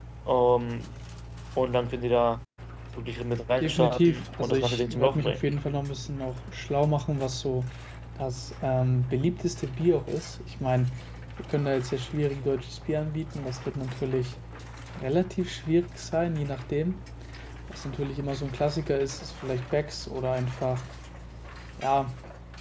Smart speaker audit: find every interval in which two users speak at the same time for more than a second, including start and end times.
3.6-5.4

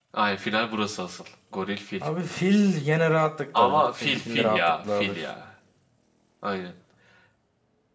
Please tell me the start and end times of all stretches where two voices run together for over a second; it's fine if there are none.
3.6-5.2

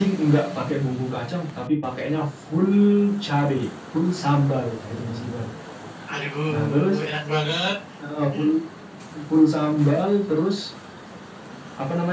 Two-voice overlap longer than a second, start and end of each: none

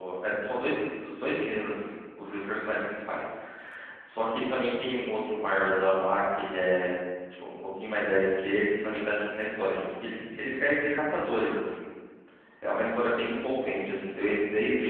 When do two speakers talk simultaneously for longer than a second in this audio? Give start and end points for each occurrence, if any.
none

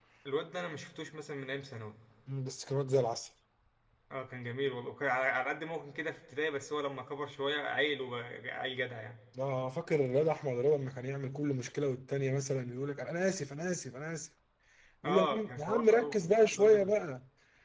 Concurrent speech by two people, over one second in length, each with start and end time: 15.0-16.9

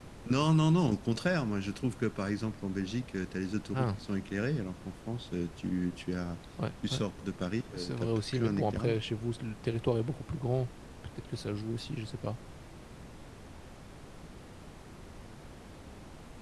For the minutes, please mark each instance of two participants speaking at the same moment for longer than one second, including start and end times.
7.8-9.0

